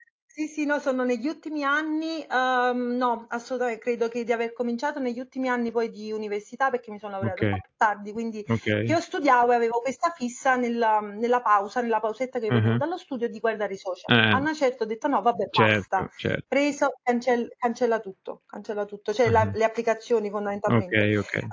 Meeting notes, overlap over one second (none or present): none